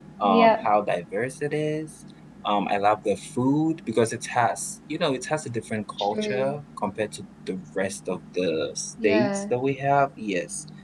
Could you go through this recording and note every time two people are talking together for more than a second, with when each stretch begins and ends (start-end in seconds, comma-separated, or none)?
none